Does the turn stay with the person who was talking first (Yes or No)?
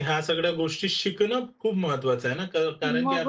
No